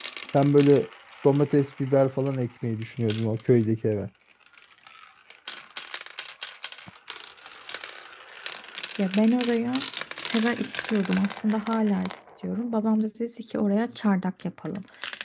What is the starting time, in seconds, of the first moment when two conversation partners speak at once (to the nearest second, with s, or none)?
none